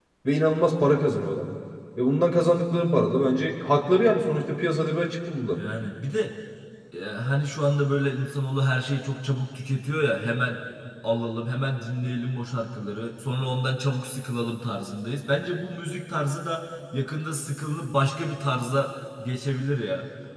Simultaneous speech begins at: none

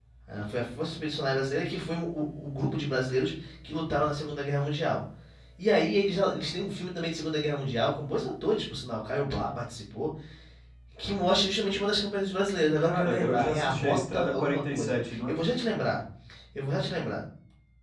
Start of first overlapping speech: 12.8 s

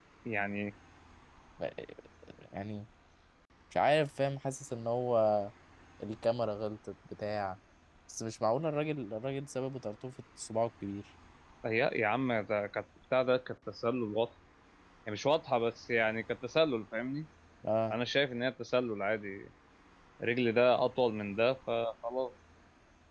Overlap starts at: none

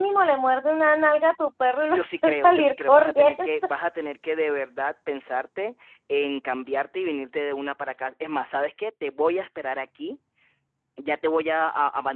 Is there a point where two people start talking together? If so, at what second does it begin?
1.9 s

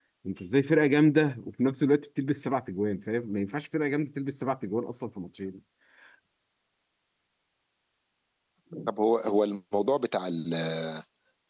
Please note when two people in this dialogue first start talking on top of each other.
none

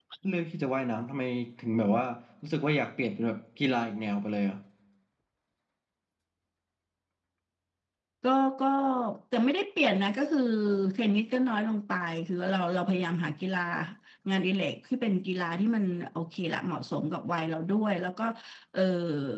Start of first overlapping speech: none

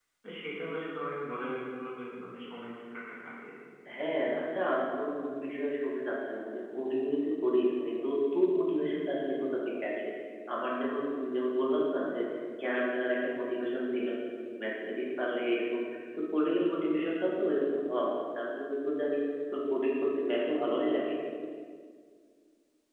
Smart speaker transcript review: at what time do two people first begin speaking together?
none

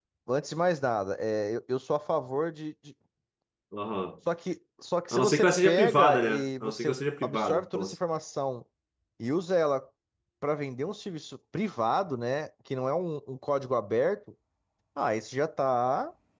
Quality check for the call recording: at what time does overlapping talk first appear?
5.1 s

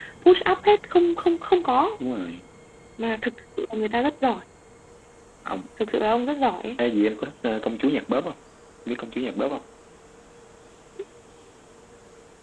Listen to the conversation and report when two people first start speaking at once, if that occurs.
none

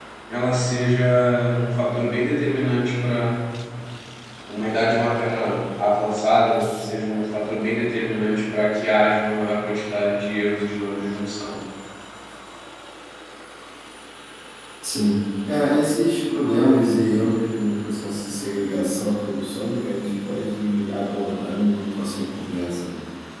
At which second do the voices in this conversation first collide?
none

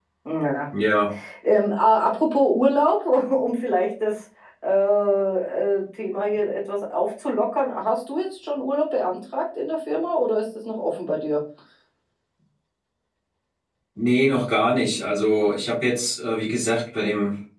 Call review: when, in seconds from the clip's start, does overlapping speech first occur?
none

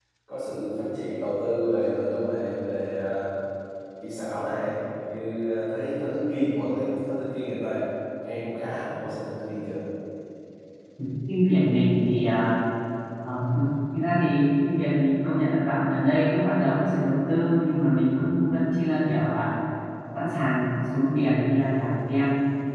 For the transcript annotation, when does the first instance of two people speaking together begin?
none

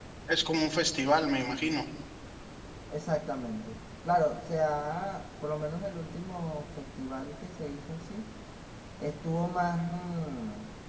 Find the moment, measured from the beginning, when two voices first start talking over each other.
none

